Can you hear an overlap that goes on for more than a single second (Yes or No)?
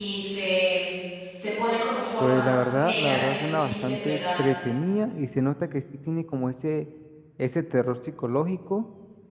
Yes